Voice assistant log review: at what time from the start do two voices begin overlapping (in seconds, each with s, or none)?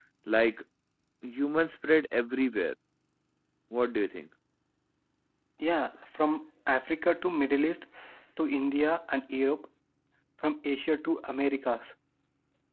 none